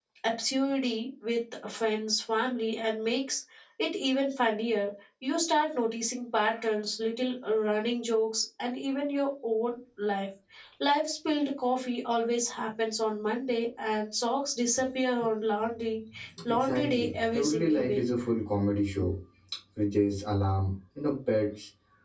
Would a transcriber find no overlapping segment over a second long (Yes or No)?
No